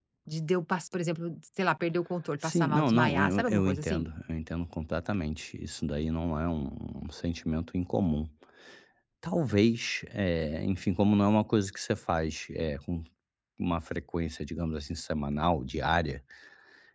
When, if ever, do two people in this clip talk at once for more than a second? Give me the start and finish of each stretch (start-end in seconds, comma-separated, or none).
2.4-4.1